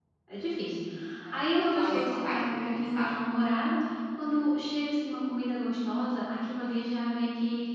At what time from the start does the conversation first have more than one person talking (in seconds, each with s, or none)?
1.4 s